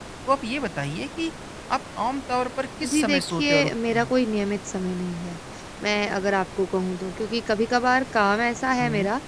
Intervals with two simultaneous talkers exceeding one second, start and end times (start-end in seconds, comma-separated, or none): 2.9-4.1